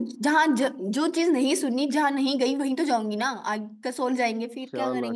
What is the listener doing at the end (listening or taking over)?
taking over